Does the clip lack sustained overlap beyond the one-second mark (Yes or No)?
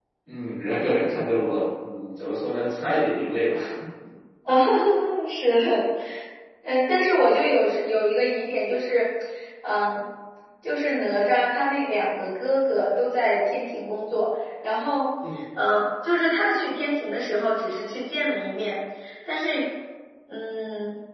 Yes